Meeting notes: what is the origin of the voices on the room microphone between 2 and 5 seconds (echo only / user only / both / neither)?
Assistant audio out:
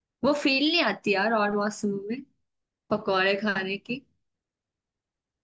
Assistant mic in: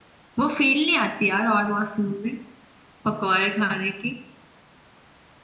echo only